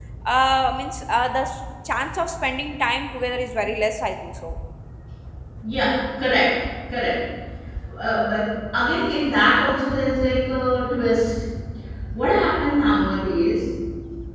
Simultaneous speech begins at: none

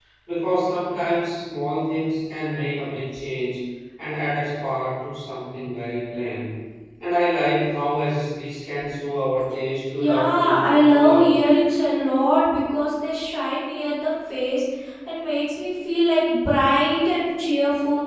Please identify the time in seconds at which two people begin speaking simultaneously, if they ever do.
9.9 s

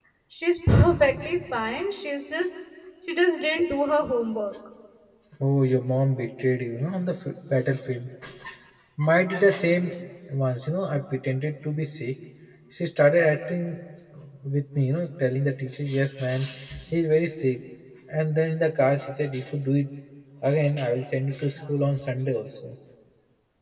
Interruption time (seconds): none

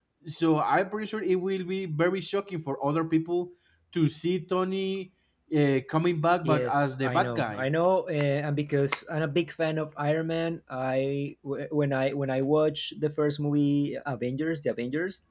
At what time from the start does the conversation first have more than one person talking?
6.4 s

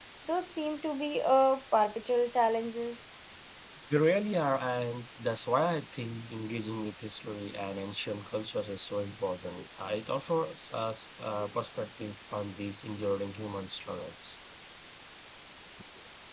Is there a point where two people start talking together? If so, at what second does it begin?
none

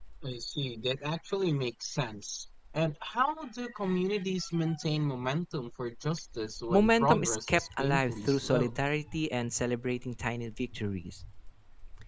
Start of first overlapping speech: 6.7 s

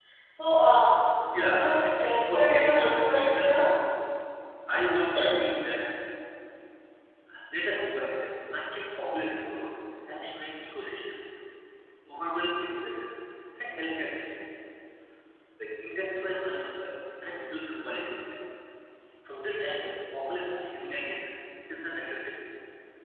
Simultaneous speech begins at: 1.3 s

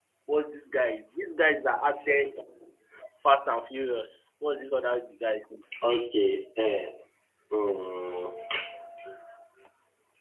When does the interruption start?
none

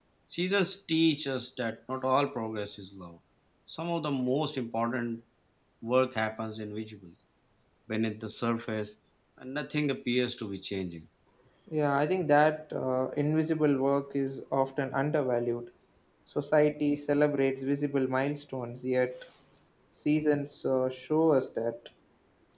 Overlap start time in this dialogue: none

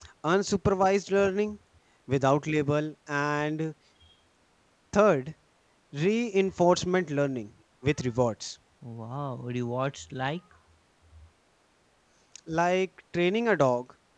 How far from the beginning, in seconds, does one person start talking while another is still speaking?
none

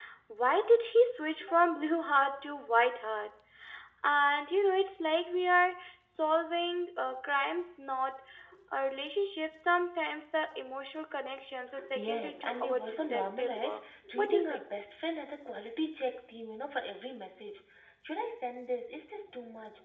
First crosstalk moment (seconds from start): 11.8 s

